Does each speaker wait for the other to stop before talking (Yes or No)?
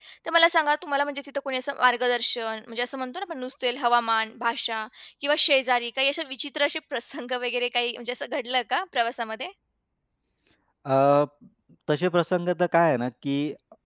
Yes